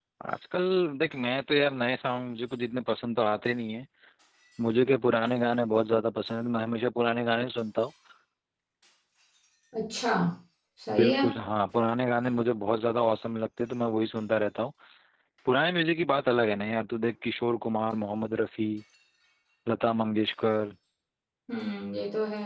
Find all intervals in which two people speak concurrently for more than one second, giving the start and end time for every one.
none

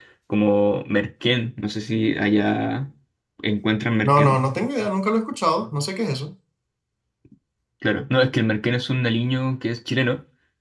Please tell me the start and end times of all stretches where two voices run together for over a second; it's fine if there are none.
none

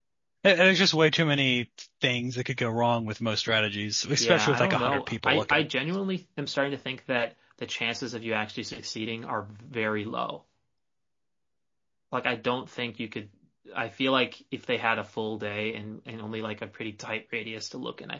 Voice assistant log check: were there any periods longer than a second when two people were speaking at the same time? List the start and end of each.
4.2-5.6

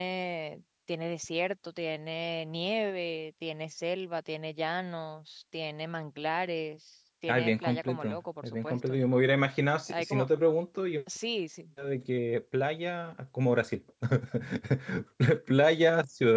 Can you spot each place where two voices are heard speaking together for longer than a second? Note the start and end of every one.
7.3-9.0

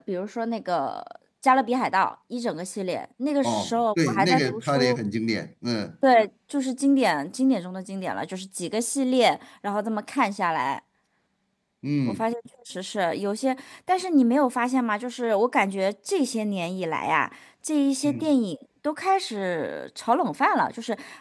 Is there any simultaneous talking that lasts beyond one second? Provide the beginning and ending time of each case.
3.4-5.0

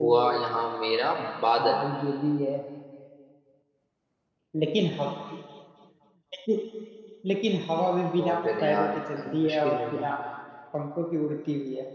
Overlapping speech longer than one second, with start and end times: 8.2-10.1

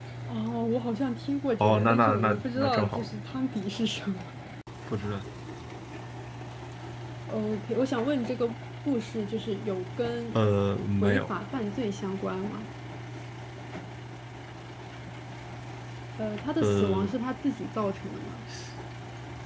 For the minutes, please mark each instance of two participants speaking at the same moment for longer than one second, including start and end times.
1.6-3.0

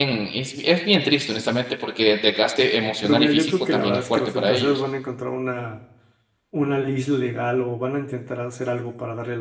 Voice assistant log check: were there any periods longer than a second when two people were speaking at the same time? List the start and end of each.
3.0-4.8

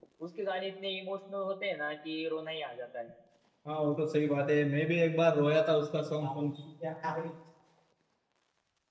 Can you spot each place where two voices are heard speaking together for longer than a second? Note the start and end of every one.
none

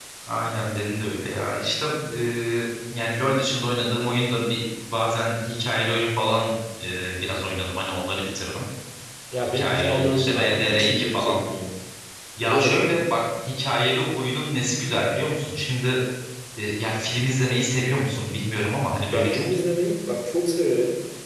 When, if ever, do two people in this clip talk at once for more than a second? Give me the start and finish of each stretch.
9.4-11.4

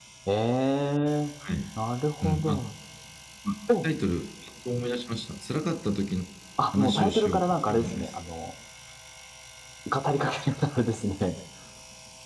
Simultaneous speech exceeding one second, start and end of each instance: 6.7-8.1

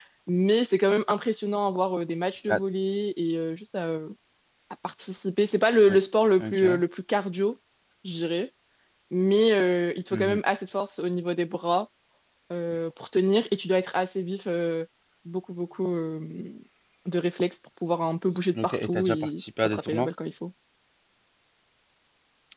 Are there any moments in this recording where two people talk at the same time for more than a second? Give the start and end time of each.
18.6-20.1

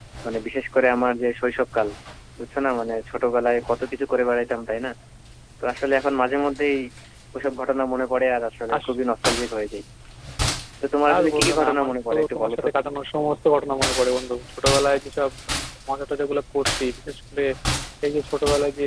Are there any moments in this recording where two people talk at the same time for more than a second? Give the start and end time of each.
11.1-12.7

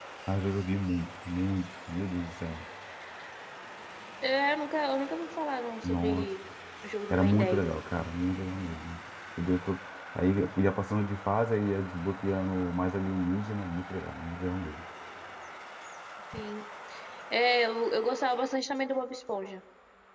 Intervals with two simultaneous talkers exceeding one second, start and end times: none

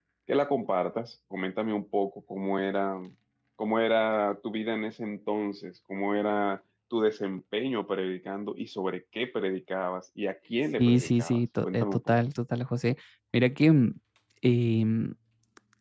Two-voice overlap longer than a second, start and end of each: 10.8-12.2

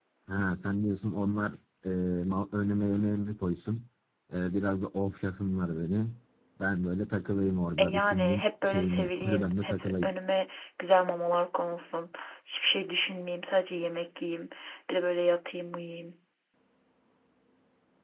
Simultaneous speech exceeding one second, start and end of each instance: 7.8-10.1

